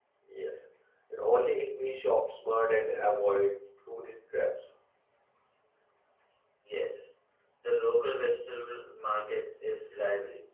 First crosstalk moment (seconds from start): none

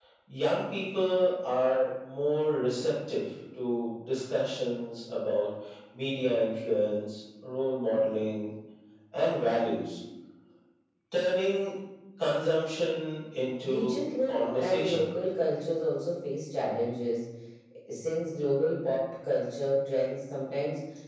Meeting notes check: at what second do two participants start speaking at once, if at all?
14 s

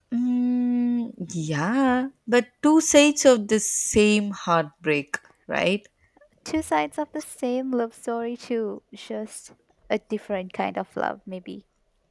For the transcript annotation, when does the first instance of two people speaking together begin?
none

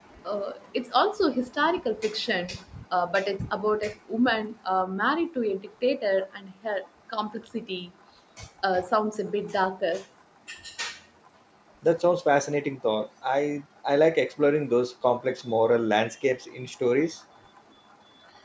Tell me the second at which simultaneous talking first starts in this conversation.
none

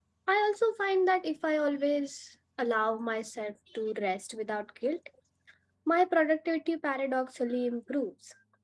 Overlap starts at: none

